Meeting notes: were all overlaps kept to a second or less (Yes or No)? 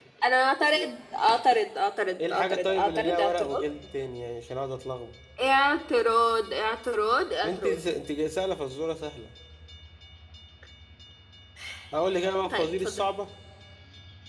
No